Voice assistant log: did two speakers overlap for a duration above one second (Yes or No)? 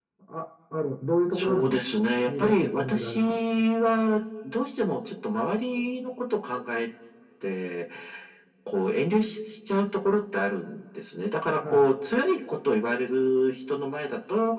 Yes